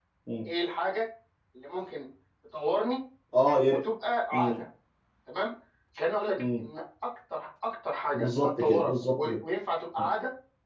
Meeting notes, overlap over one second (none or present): present